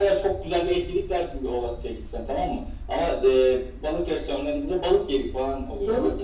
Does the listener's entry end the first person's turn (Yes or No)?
Yes